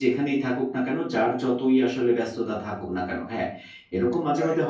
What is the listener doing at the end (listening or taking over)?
listening